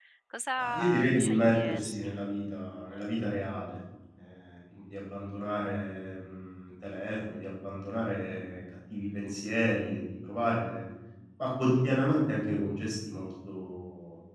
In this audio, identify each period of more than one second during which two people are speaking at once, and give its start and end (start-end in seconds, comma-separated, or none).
0.6-2.1